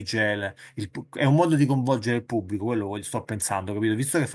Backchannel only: Yes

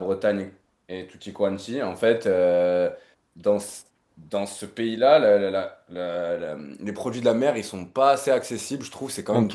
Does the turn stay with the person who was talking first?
Yes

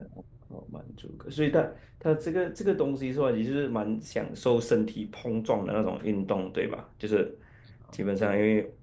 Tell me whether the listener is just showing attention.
Yes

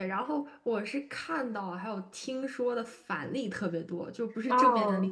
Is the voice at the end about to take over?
No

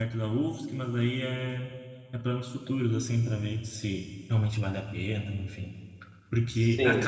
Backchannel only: Yes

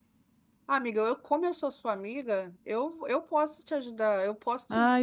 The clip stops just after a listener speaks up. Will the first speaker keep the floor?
No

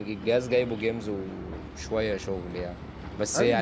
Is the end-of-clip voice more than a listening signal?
Yes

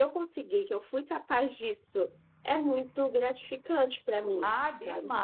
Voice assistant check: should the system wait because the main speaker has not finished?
No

